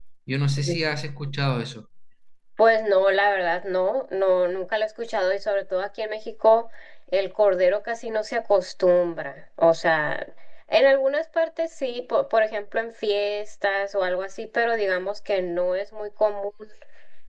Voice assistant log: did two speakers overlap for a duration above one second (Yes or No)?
No